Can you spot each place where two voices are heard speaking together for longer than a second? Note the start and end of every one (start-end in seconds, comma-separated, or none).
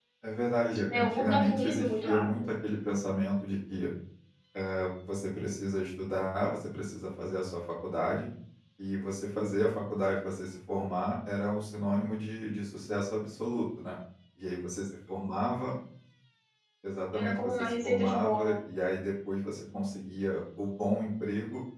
0.9-2.4, 17.1-18.6